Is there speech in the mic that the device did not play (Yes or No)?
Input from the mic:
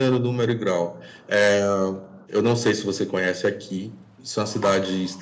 No